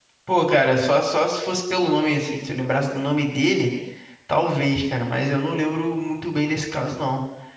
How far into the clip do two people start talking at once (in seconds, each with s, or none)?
none